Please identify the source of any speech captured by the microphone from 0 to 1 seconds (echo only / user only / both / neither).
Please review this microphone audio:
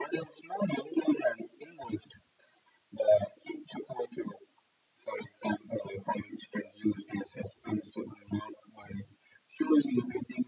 echo only